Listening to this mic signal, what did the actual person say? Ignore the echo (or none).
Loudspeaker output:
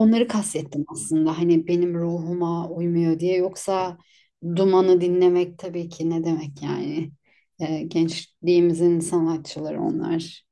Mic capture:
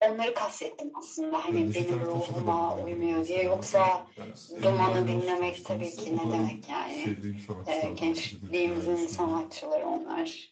Yani Neşet Ertaş'a da ben bayılırım mesela. Amy, yani Amy Winehouse demiştiniz. E, O da en sevdiğim sanatçılardan biridir yani şimdi.